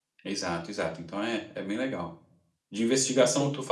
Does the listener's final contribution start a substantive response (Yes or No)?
No